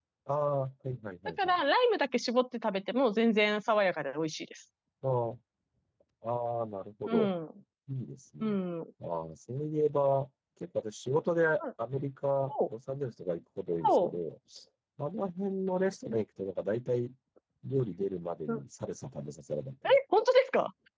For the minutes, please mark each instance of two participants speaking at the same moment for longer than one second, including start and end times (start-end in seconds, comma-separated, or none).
none